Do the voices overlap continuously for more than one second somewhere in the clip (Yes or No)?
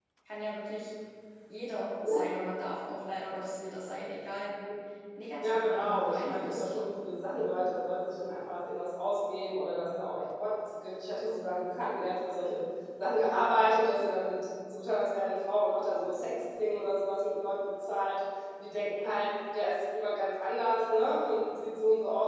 Yes